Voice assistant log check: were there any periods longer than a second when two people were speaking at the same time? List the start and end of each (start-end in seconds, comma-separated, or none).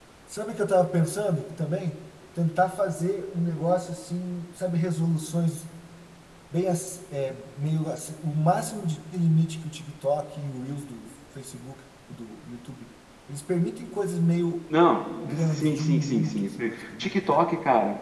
15.2-17.4